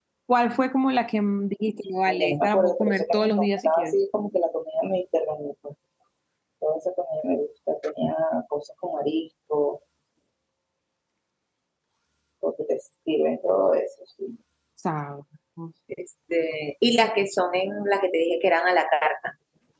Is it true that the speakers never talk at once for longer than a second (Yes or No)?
No